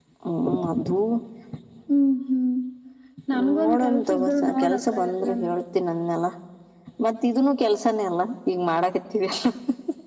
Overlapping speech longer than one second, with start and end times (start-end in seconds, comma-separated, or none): 3.6-5.4